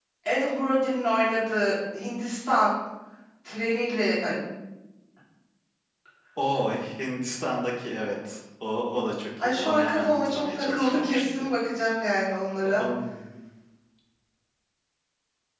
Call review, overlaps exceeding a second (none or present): present